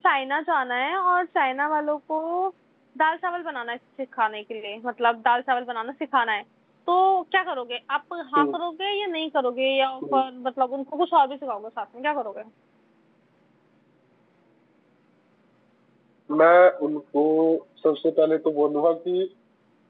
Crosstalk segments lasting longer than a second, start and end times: none

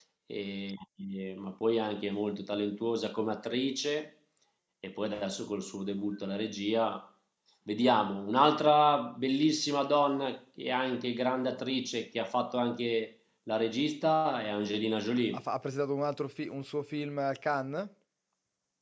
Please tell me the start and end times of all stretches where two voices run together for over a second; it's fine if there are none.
none

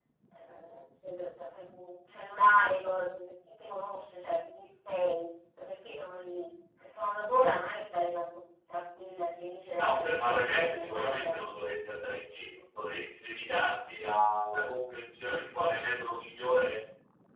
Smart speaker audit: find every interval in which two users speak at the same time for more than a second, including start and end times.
9.8-11.6

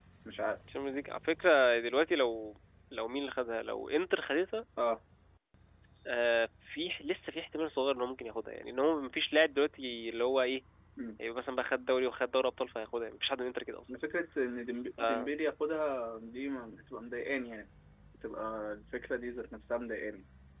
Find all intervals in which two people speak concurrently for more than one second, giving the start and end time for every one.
none

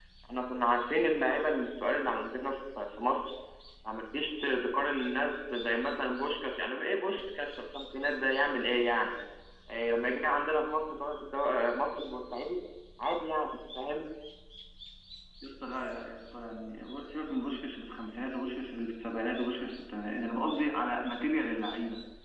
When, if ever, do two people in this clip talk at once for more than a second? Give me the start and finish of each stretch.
none

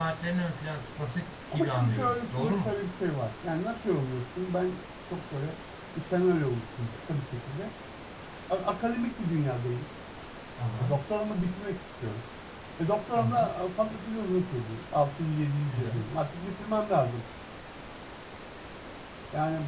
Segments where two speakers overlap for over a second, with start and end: 1.5-2.8

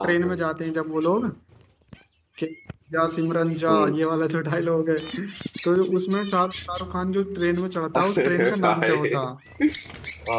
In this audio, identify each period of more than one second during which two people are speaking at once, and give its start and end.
8.0-9.2

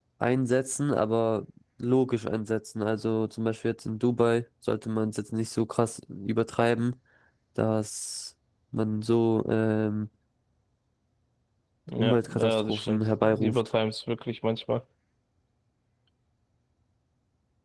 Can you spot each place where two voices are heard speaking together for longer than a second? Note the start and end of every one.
12.0-13.7

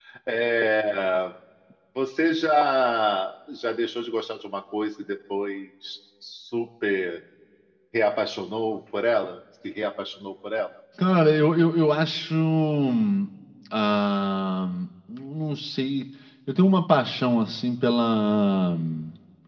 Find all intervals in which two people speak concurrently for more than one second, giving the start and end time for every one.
none

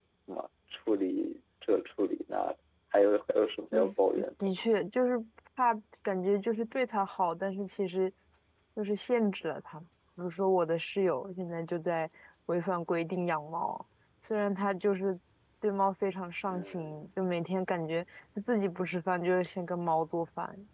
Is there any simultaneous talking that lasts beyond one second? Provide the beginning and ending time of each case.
none

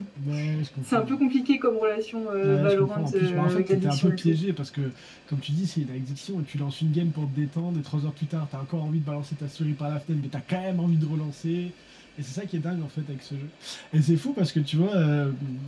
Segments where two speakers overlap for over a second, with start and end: 2.4-4.3

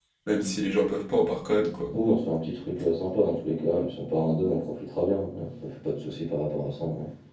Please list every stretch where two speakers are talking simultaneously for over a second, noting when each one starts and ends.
none

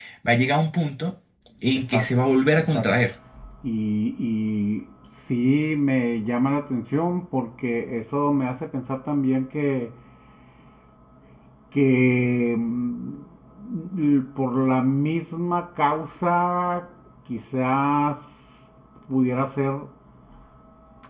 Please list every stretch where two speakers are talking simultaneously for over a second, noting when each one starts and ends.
1.7-3.0

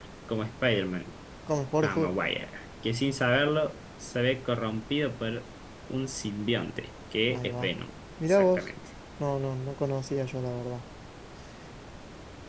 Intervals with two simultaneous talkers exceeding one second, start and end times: none

